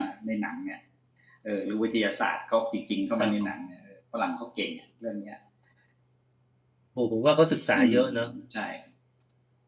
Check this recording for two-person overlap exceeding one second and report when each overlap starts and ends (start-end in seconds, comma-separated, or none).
none